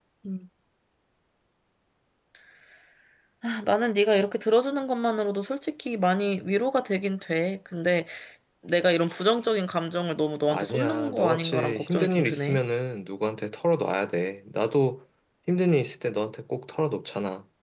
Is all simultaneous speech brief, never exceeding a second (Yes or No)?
No